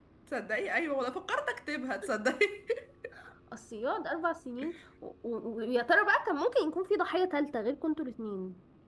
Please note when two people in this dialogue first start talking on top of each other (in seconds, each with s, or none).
none